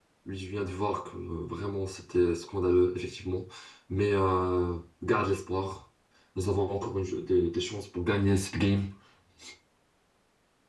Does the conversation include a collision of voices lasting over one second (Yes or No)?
No